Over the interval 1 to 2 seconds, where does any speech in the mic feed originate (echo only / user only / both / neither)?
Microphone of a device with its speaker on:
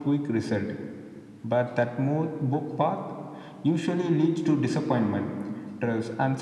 echo only